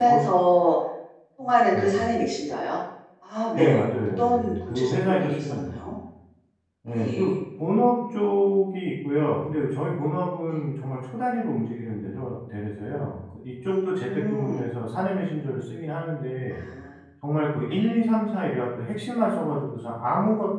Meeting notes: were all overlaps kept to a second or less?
No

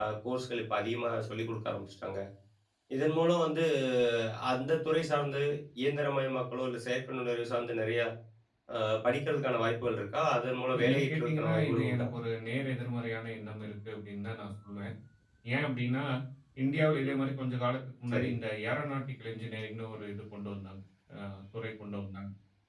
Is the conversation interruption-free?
No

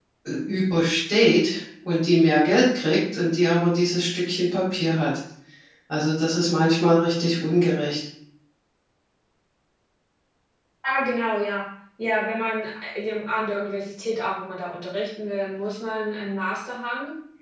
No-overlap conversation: Yes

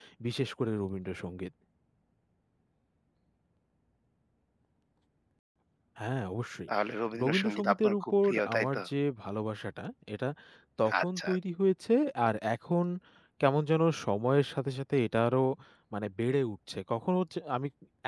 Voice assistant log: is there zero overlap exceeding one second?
No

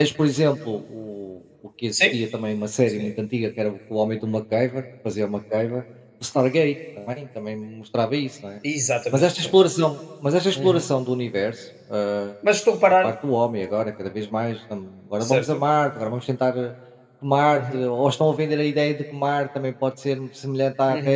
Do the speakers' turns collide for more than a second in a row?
No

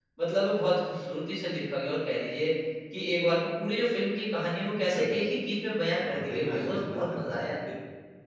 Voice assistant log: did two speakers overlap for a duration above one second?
Yes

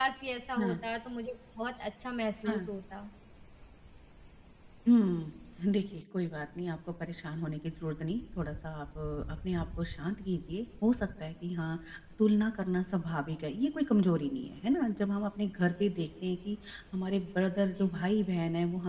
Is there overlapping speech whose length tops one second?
No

